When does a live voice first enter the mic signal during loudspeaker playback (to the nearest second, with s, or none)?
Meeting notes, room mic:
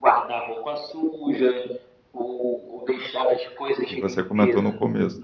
4 s